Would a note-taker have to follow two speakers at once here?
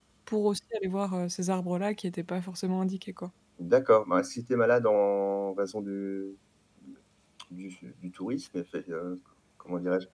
No

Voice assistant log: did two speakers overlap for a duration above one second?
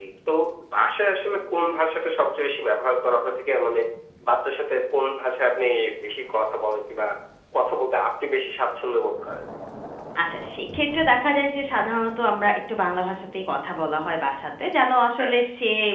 No

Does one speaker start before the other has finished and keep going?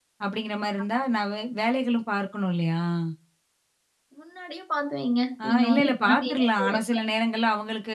Yes, from 5.4 s

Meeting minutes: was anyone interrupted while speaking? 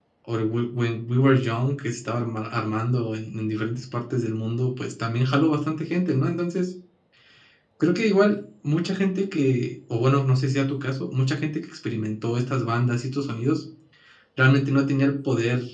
No

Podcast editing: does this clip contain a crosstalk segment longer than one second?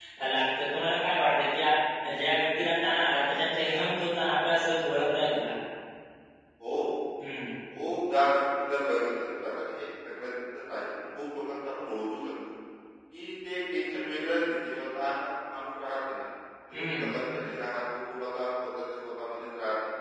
No

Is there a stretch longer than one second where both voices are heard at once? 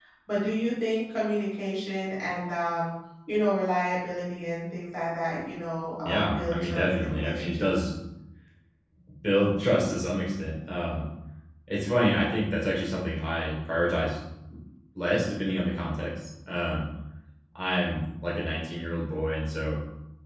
Yes, from 6.0 s

